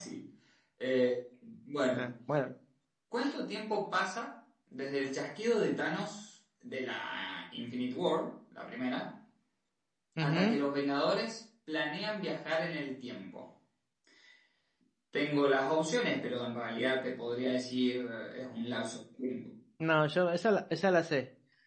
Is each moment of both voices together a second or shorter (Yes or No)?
Yes